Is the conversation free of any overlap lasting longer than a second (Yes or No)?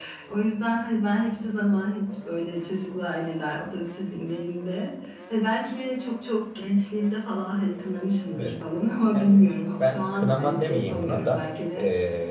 No